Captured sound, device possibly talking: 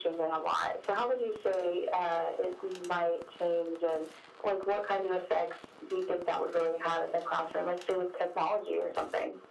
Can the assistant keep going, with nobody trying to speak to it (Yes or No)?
Yes